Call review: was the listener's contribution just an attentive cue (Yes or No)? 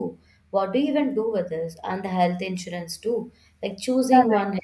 No